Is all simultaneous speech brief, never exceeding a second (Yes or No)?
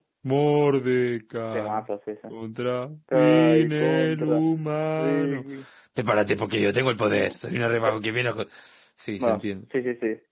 No